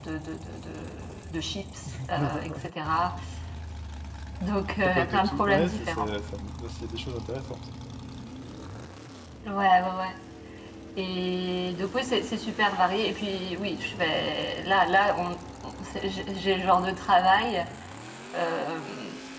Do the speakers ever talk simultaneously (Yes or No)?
Yes